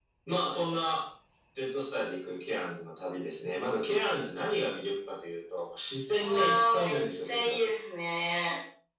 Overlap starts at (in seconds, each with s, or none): 6.2 s